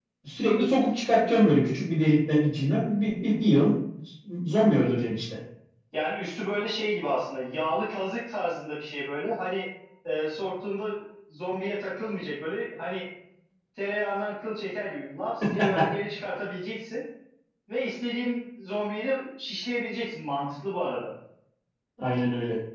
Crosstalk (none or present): none